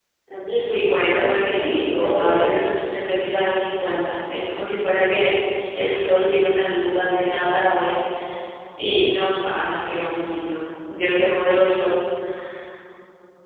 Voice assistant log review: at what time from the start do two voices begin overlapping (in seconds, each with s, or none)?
0.6 s